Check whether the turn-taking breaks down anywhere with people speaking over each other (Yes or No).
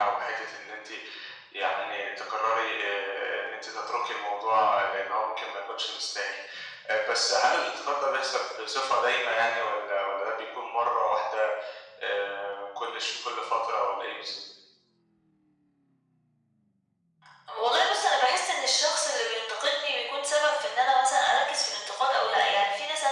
No